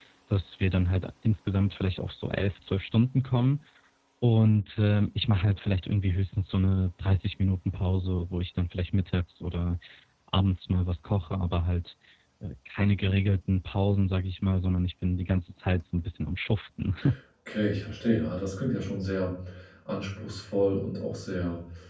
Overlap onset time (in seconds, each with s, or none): none